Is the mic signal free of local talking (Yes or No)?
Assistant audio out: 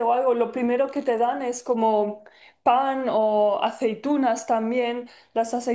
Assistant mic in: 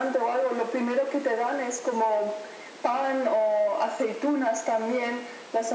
Yes